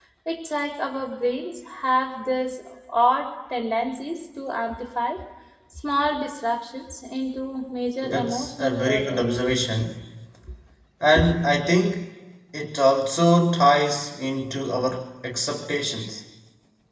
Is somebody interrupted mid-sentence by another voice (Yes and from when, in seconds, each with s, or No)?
Yes, from 8.0 s